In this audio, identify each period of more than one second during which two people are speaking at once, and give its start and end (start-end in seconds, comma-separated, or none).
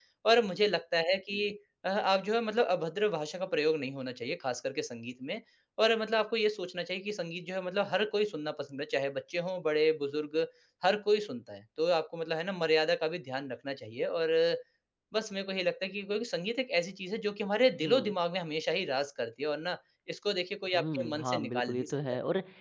20.7-22.0